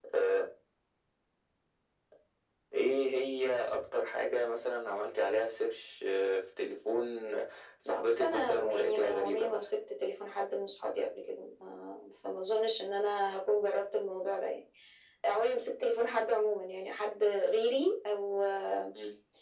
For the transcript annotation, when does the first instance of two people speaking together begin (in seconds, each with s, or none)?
7.9 s